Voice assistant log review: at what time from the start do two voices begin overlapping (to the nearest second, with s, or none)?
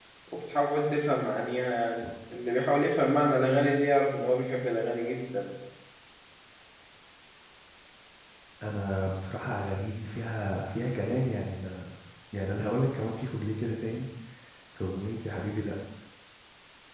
none